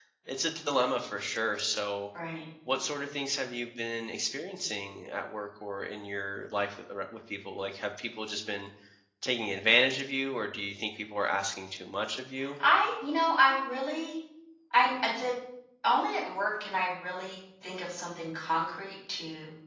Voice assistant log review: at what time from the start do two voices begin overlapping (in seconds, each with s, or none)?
none